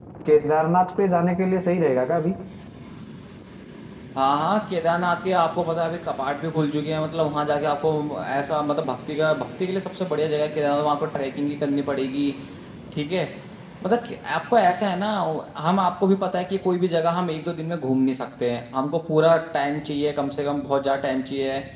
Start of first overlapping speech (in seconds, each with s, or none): none